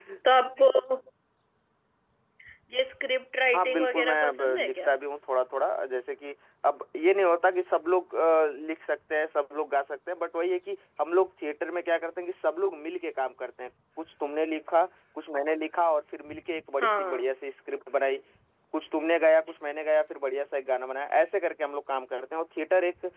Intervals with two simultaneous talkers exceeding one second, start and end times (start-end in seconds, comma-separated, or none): 3.5-4.9